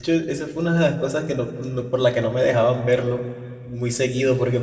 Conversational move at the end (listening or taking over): listening